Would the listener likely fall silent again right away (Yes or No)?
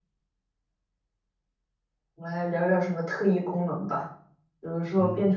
Yes